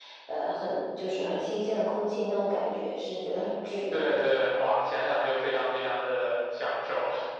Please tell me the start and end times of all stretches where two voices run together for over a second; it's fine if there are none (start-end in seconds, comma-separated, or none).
none